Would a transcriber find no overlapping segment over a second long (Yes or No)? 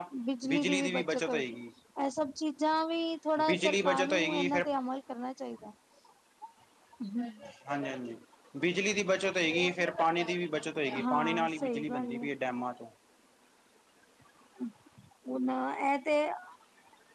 No